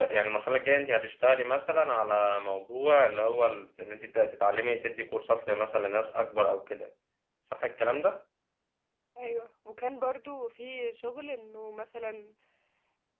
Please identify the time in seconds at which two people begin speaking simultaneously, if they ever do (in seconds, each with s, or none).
none